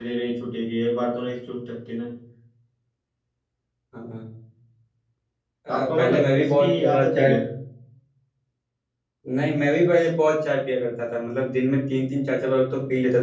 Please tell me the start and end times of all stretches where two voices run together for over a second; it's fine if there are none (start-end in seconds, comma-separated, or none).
5.8-7.3